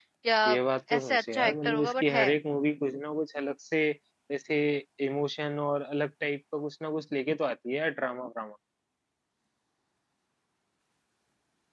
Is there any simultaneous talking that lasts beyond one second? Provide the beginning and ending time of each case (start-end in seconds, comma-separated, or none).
1.0-2.3